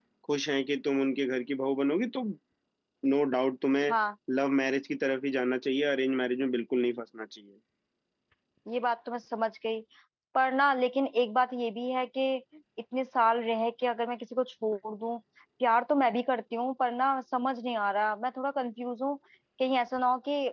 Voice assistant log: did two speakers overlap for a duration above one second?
No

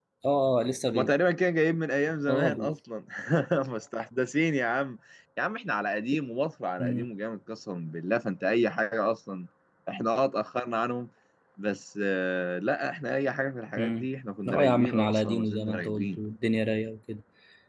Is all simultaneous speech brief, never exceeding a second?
No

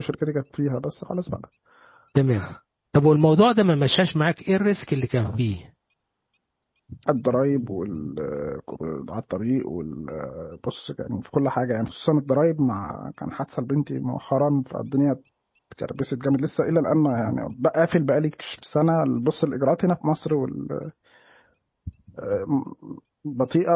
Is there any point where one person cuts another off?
No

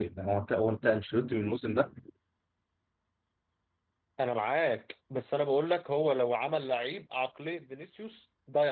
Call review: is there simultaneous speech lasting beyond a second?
No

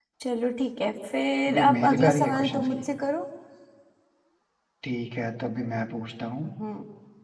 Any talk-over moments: Yes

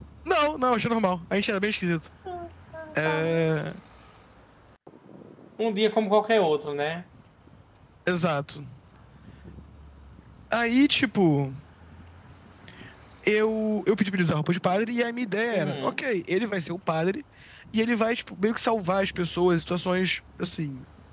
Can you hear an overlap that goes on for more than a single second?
No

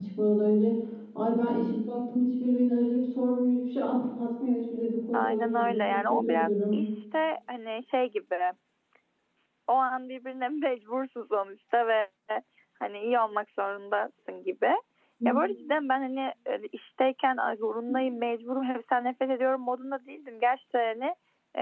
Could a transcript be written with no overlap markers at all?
No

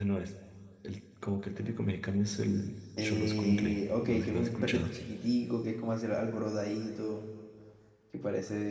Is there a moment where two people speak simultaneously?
Yes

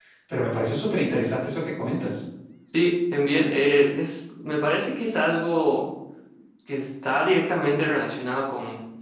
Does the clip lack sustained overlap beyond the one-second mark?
Yes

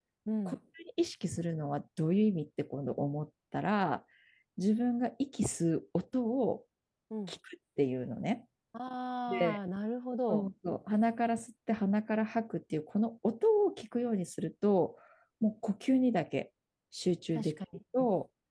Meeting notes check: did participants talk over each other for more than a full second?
No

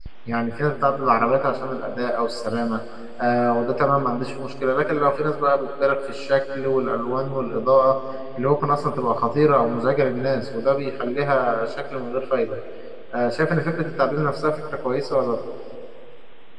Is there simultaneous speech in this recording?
No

